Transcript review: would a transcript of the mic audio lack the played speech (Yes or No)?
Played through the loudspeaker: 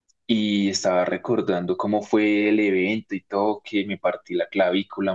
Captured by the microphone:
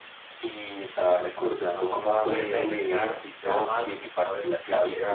No